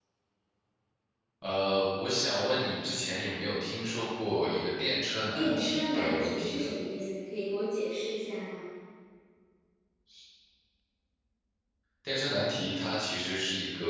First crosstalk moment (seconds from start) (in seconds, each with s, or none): 5.3 s